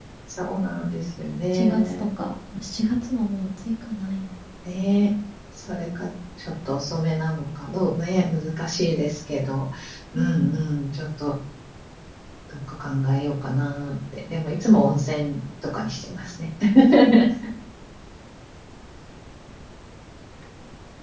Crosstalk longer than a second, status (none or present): none